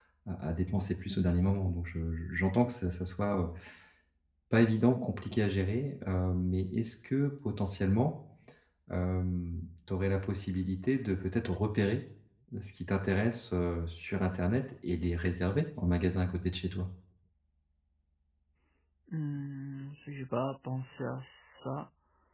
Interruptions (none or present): none